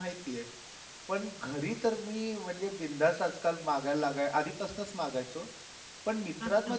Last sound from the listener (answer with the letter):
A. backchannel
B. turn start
A